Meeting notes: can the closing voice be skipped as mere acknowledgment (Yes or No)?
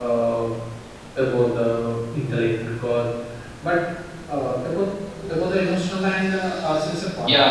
No